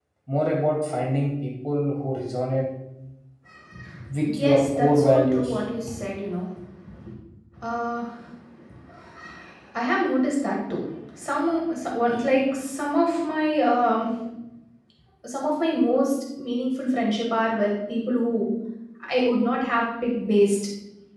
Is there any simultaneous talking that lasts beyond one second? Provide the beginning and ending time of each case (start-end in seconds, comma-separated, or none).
4.4-5.6